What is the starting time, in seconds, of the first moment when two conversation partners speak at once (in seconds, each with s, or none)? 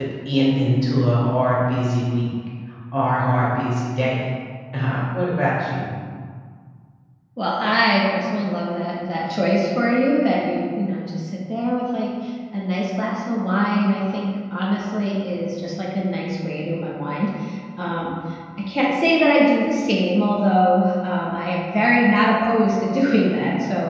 none